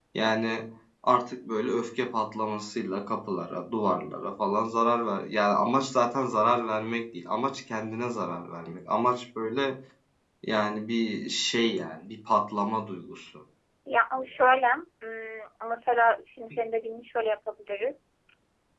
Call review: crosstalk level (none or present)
none